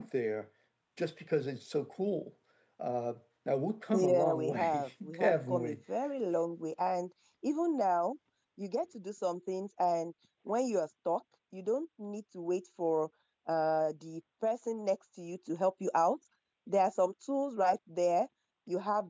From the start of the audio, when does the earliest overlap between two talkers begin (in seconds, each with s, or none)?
3.9 s